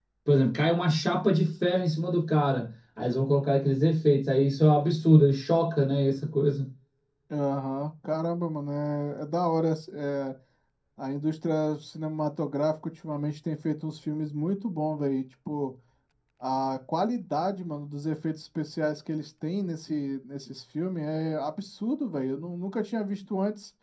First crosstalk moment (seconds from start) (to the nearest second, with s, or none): none